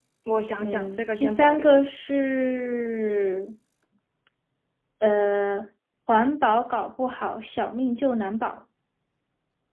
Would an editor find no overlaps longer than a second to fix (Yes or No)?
No